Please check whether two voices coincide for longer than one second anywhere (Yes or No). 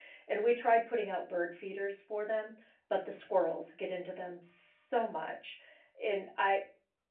No